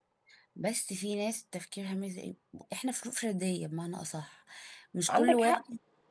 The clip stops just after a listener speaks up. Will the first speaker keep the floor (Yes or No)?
Yes